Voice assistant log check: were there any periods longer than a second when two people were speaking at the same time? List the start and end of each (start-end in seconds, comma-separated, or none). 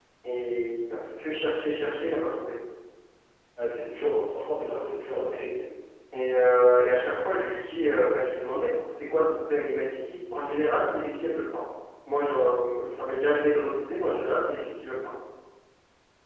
none